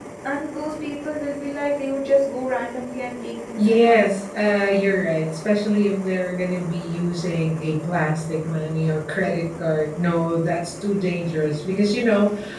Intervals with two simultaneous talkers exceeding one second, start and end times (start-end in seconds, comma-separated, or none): none